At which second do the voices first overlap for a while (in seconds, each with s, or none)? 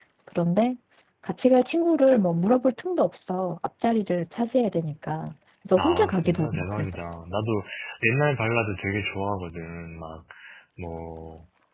5.8 s